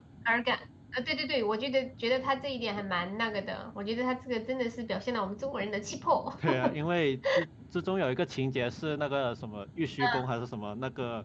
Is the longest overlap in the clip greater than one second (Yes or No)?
No